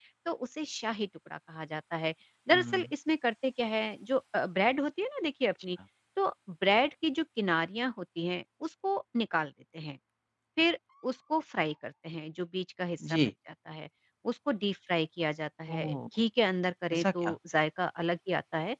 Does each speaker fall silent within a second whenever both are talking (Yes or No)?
Yes